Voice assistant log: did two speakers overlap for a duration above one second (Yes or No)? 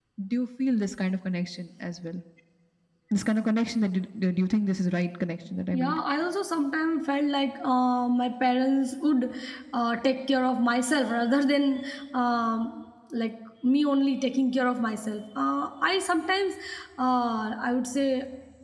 No